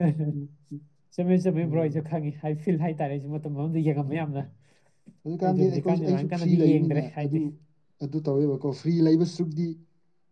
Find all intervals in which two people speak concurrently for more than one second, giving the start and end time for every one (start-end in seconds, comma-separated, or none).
5.4-7.4